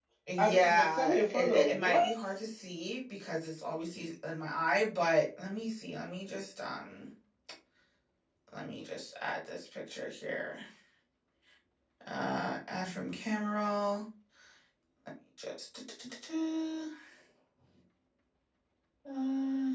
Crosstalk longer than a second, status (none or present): present